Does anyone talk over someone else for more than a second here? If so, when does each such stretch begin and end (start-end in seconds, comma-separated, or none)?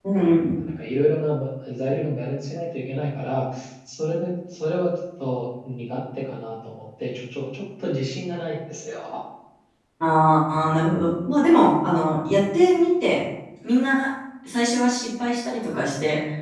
none